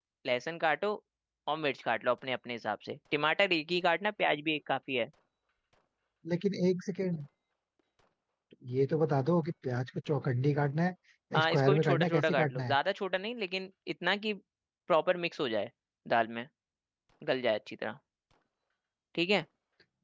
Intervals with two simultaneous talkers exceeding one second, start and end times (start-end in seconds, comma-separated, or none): 11.3-12.7